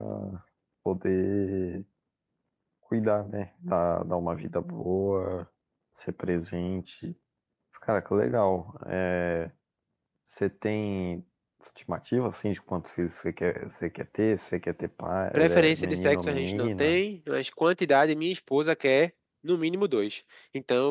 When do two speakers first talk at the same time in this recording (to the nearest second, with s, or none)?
15 s